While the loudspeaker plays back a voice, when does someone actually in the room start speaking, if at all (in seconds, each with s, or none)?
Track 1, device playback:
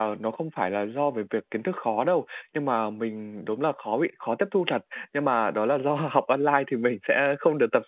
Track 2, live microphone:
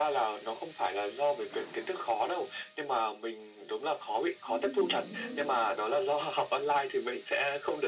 4.5 s